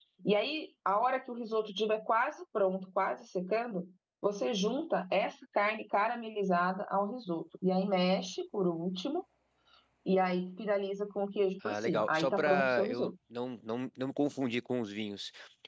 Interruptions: present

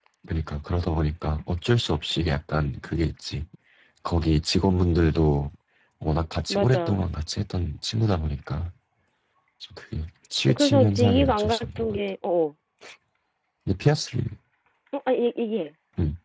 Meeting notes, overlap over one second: present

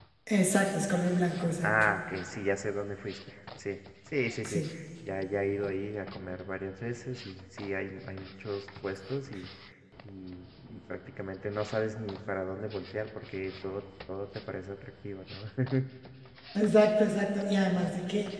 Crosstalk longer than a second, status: none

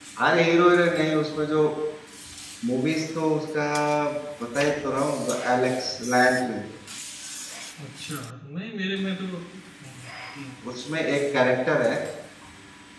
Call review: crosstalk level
none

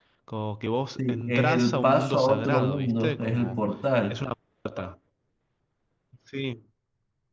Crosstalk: present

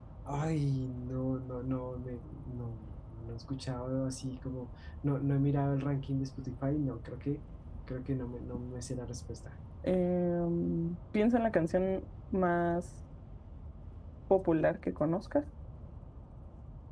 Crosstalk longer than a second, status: none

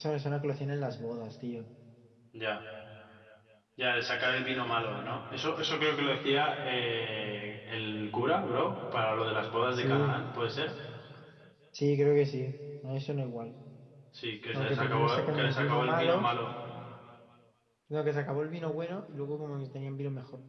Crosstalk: present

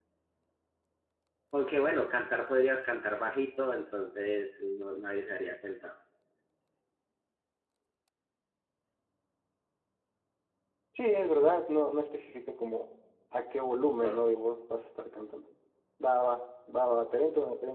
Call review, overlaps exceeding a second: none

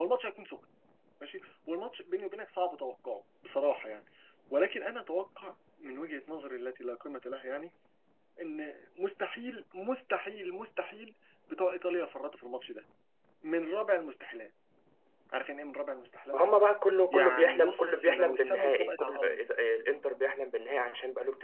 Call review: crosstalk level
present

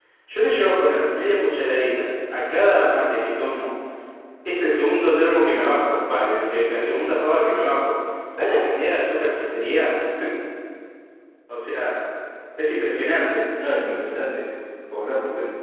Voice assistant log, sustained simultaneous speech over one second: none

